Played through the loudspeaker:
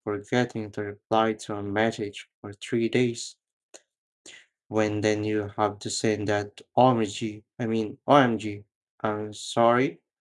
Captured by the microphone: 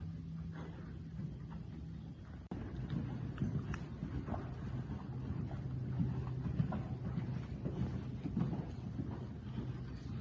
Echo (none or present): none